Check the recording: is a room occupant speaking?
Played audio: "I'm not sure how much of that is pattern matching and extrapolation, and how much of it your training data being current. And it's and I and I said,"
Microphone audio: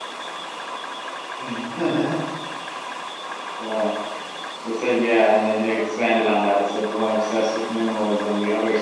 Yes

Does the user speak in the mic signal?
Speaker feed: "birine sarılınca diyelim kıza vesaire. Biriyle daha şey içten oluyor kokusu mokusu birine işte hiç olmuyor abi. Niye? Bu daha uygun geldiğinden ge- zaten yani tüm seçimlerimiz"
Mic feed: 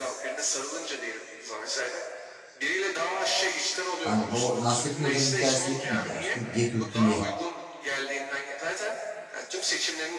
Yes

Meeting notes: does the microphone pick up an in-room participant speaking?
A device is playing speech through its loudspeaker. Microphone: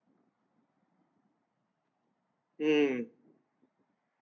Yes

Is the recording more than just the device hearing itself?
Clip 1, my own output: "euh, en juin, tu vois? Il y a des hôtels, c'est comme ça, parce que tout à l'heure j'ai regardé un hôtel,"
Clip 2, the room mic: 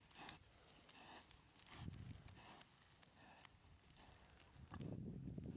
No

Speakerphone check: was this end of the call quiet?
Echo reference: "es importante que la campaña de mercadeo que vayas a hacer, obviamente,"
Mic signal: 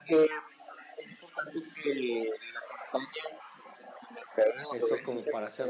No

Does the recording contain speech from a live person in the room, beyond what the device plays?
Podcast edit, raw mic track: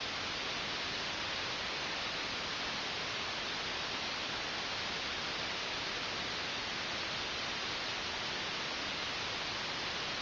No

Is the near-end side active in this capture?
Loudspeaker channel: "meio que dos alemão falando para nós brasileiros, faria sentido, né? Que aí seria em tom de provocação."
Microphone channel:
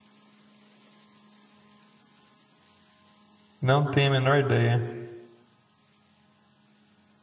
Yes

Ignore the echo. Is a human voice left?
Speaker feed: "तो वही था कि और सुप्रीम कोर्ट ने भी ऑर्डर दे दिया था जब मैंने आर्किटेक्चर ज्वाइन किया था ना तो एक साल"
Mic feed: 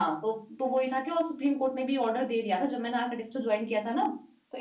No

